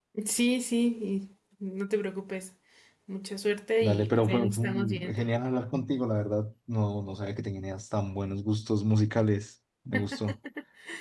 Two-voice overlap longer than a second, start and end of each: 3.8-5.2

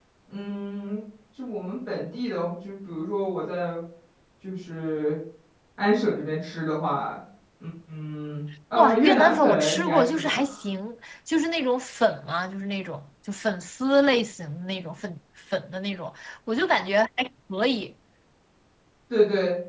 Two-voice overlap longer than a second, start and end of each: 8.7-10.4

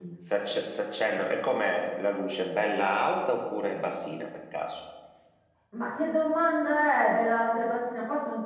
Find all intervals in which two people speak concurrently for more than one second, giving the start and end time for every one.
none

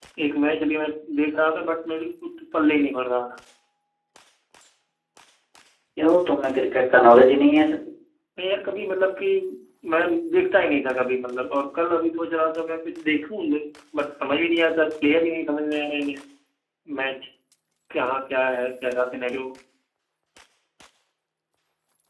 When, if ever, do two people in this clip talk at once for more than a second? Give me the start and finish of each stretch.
none

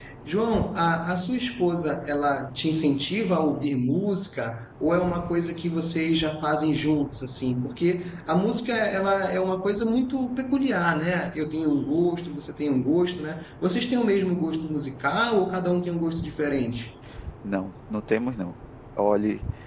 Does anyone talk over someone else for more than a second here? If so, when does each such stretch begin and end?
none

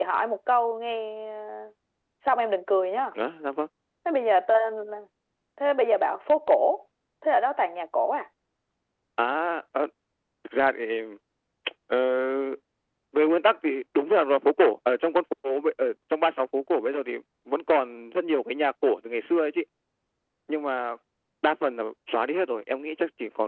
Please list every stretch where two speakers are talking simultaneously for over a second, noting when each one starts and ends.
none

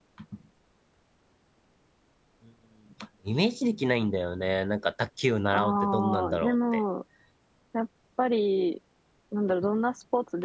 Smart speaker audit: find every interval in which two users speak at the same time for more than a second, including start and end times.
5.5-6.8

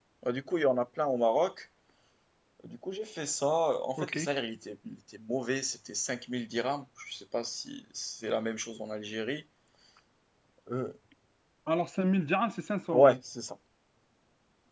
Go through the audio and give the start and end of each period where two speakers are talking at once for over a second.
none

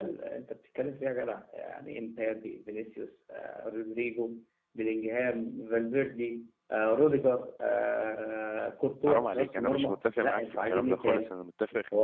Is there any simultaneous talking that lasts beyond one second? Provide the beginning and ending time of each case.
9.1-11.3

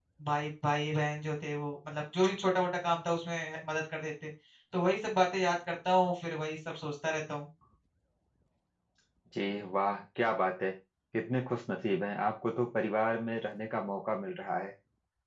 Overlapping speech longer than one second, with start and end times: none

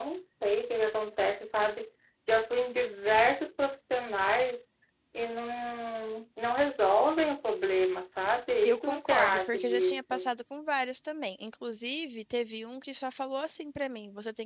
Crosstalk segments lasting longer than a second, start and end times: 8.7-10.3

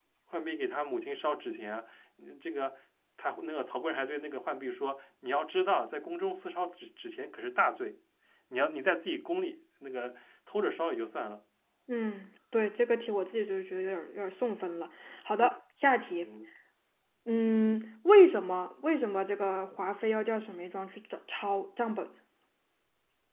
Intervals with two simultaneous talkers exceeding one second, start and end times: none

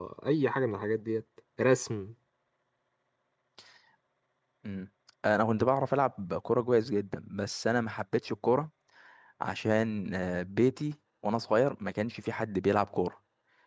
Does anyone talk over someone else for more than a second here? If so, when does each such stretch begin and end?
none

